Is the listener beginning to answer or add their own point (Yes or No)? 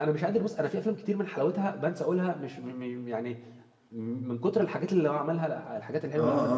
Yes